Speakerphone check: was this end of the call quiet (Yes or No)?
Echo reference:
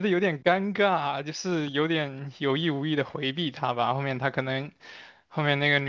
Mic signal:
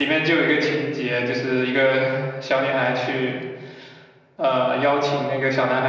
No